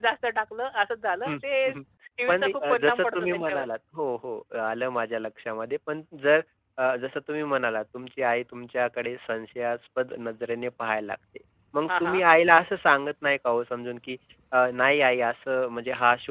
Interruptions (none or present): present